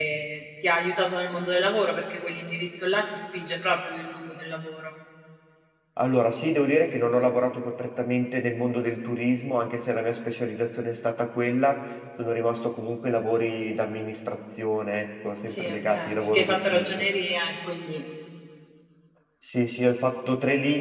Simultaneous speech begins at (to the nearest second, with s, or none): 15 s